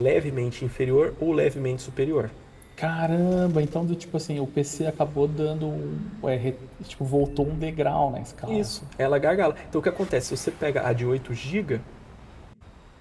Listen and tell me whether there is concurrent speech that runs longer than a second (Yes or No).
No